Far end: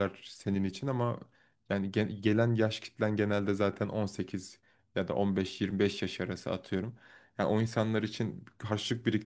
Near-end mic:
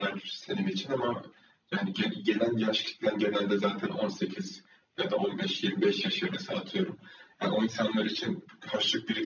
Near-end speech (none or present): none